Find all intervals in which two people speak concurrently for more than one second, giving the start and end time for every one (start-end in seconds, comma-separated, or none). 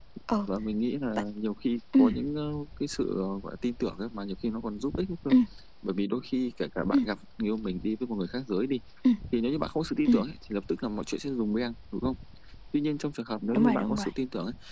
none